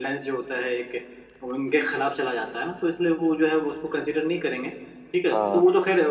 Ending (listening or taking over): listening